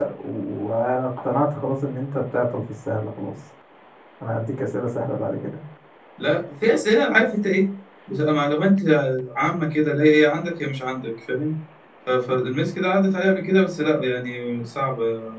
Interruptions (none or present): none